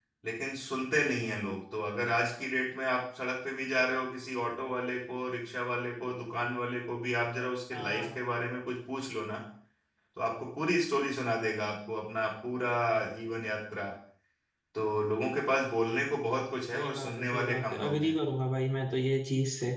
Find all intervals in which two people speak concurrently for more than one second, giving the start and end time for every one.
16.7-18.2

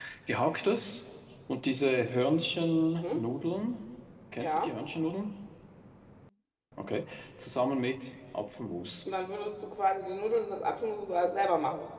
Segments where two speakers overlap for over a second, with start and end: none

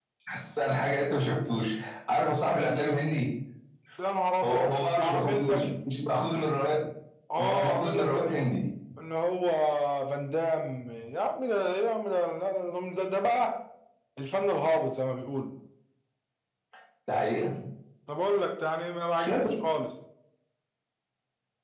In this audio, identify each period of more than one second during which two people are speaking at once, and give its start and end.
4.4-5.7, 7.4-8.6

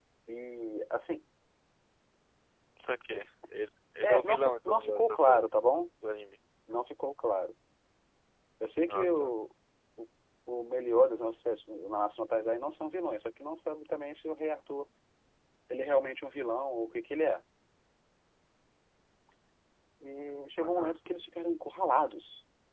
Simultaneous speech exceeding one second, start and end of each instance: 4.0-5.4

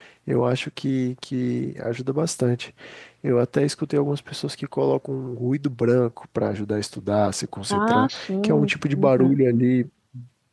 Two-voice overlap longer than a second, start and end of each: 7.7-9.4

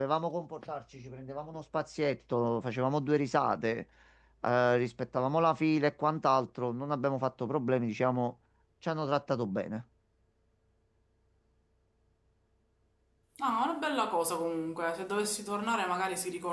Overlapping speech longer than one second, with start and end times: none

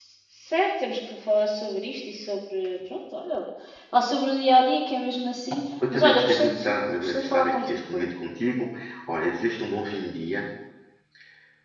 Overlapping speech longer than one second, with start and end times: 5.9-8.1

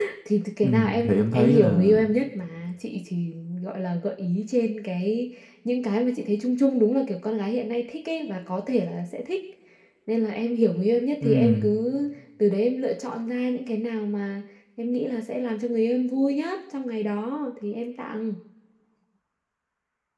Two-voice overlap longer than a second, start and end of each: 0.6-1.9

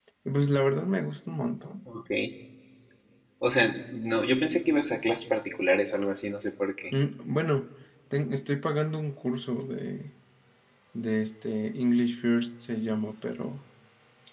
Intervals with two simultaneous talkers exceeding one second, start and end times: none

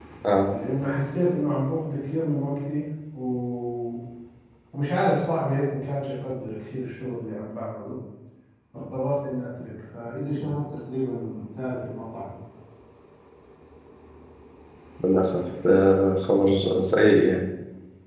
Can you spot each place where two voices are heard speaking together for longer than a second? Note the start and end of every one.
none

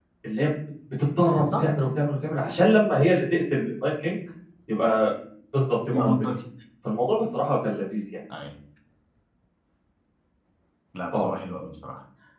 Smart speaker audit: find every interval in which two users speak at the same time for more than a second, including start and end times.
none

